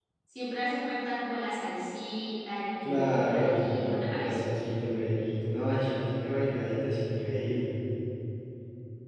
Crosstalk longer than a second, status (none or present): present